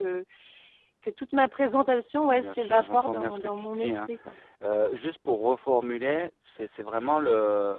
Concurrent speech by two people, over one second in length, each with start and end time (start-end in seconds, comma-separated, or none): 2.2-4.1